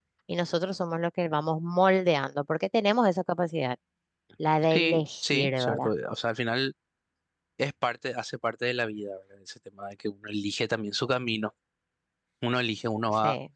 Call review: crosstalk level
present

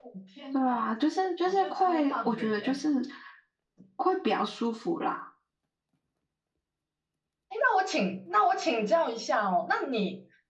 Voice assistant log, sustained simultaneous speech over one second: present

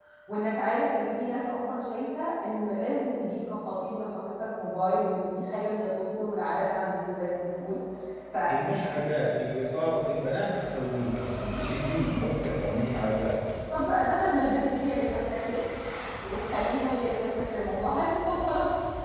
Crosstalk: none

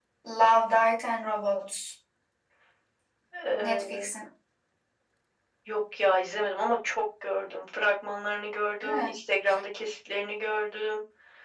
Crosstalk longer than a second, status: none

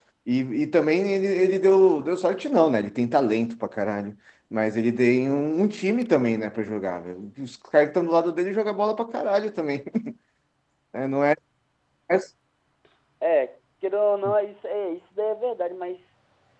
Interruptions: none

